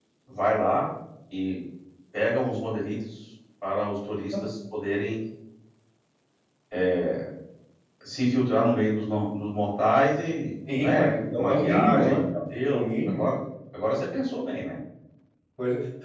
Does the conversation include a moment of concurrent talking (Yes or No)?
Yes